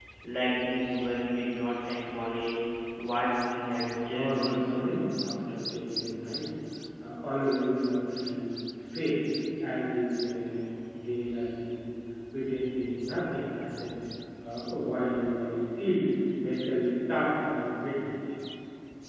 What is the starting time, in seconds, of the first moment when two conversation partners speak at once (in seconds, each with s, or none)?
3.7 s